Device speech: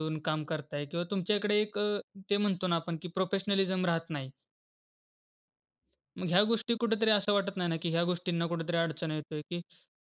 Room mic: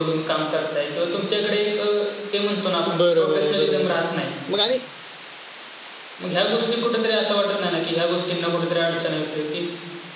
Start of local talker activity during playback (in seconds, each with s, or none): 2.9 s